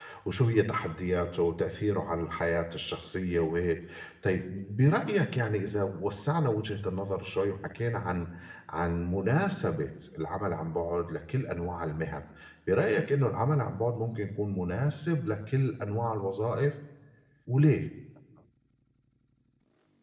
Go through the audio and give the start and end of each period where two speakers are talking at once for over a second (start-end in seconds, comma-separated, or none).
none